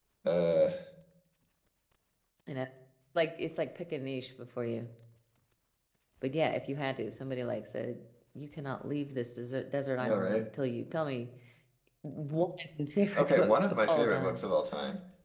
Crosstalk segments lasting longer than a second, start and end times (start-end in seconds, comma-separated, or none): 13.2-14.4